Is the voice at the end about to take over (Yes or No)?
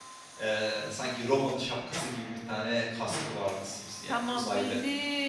Yes